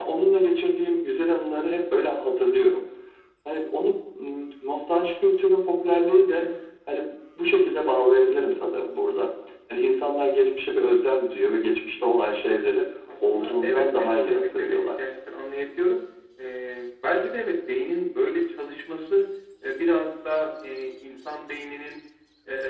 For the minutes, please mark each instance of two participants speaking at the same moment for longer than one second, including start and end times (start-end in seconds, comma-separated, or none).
13.2-14.9